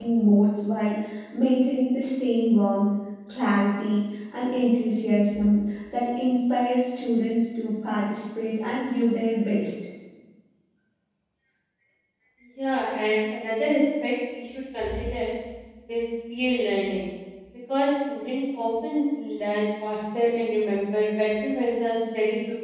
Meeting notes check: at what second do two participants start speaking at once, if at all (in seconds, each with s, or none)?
none